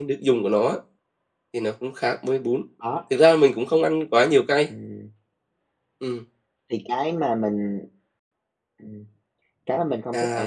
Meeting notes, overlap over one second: none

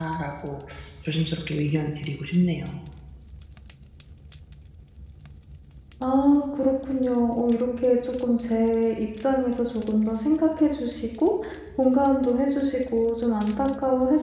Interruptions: none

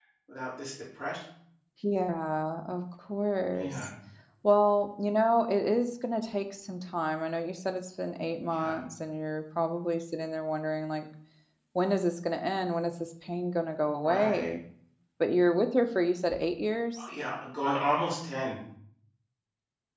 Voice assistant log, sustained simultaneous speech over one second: none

